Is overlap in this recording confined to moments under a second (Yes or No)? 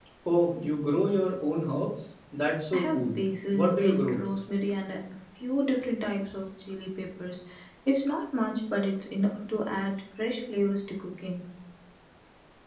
No